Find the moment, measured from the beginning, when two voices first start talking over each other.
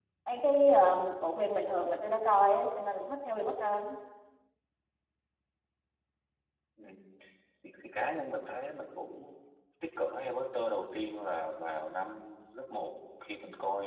none

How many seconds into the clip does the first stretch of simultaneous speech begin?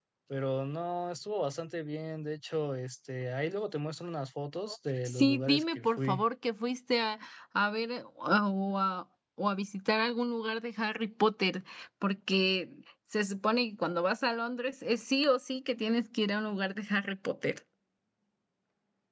5 s

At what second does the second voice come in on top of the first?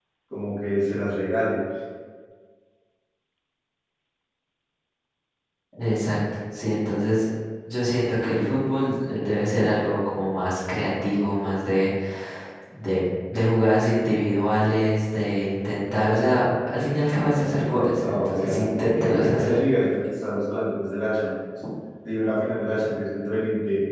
18 s

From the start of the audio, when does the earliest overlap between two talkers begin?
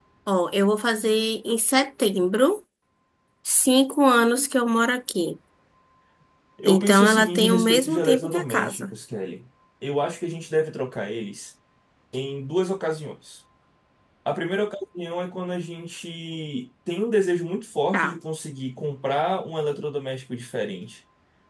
7 s

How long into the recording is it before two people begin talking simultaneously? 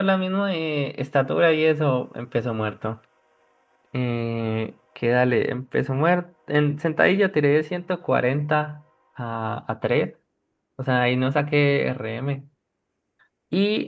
none

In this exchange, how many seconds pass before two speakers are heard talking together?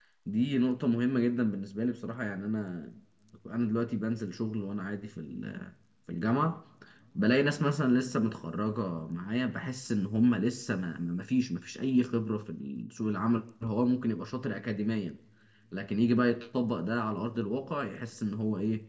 none

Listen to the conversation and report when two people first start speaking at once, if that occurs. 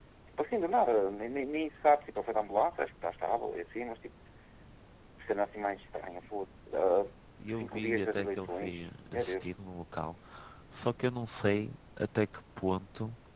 7 s

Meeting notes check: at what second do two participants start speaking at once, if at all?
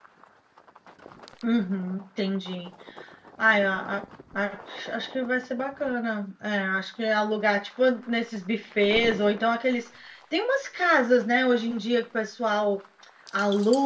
none

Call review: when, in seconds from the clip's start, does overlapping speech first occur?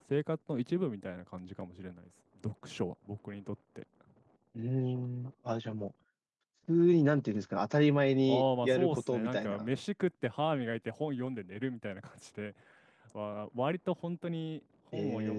8 s

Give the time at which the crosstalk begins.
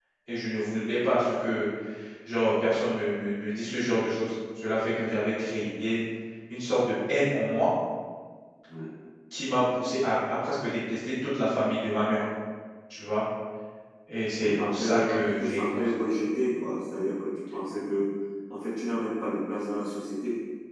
14 s

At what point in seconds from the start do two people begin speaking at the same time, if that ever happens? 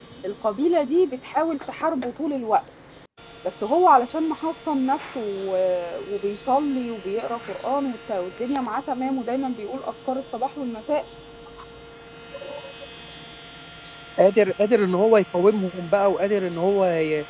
none

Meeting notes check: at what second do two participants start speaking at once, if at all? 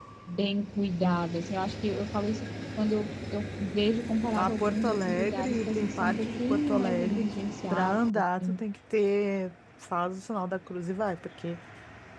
4 s

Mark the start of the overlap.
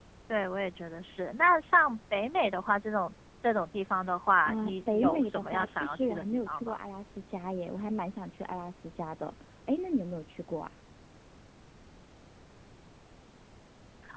4 s

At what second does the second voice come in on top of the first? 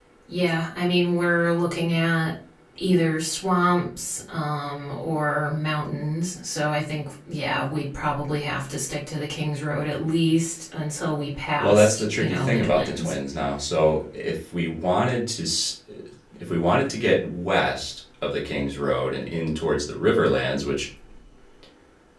12 s

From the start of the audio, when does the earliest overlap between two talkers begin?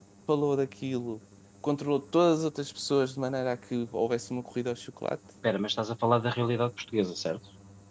none

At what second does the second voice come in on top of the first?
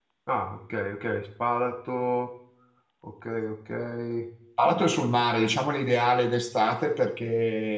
none

